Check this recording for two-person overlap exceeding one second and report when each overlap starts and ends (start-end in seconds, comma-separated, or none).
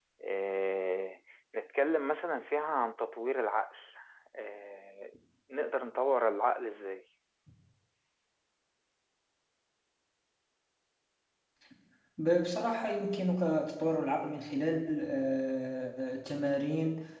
none